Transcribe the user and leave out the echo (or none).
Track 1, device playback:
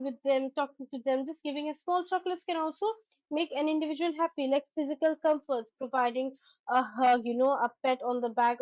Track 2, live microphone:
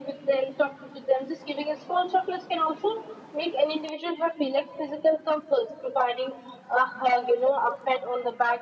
none